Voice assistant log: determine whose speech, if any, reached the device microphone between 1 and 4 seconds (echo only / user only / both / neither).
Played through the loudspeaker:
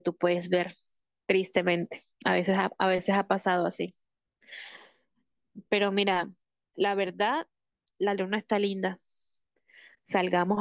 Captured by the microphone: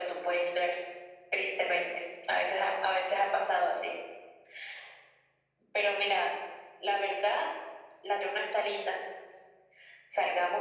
echo only